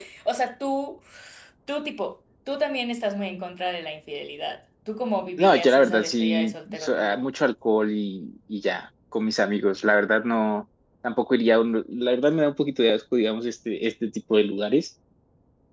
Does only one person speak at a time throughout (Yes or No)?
No